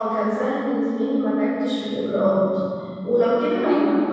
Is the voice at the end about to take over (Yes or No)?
No